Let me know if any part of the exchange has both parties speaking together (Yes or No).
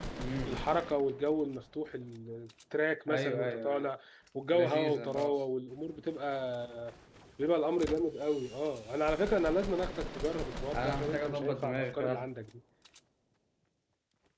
Yes